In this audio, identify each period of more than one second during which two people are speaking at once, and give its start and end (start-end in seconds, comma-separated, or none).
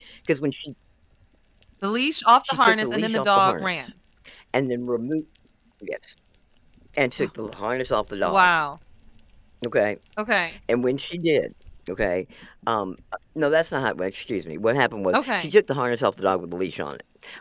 2.5-3.8